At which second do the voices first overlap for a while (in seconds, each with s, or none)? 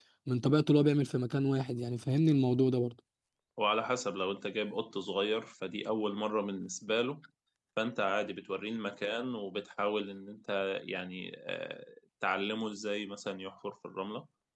none